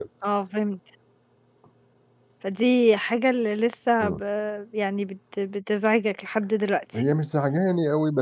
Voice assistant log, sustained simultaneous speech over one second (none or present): none